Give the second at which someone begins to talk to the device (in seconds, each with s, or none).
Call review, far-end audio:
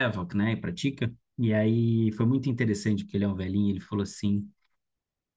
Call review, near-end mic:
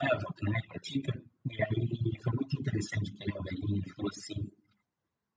none